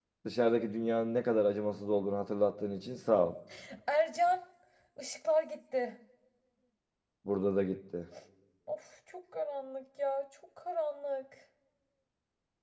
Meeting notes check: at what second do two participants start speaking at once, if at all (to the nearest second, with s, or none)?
none